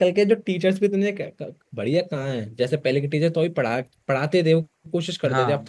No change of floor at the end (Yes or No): Yes